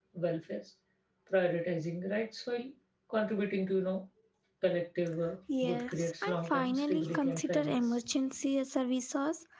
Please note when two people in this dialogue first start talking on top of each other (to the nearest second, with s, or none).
5 s